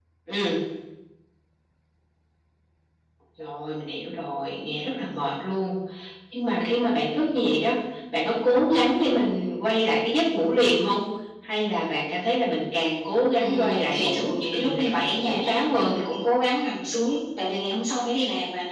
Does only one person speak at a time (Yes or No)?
No